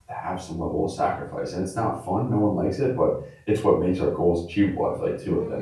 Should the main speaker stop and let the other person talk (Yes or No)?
Yes